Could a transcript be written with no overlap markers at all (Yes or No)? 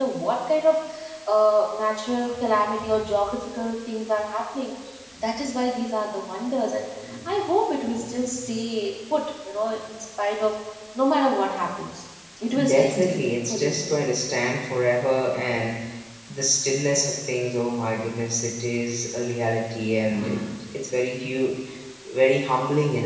No